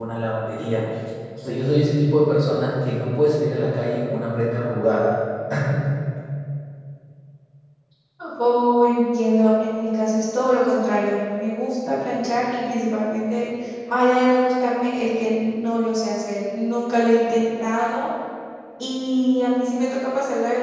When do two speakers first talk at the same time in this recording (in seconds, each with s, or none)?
none